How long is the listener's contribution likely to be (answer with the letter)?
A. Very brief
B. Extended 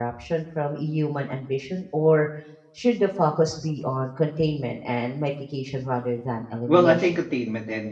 B